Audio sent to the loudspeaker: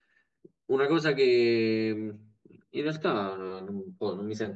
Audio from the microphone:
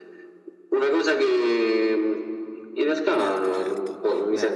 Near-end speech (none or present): present